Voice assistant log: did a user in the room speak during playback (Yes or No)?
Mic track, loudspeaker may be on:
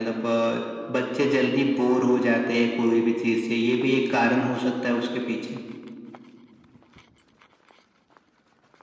No